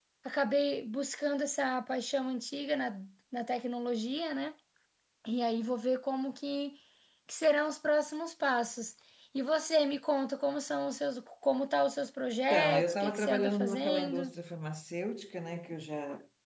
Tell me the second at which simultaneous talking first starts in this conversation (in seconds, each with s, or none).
12.5 s